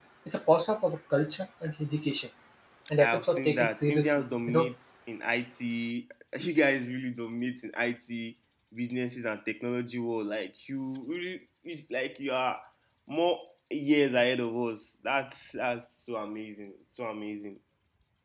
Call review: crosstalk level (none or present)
present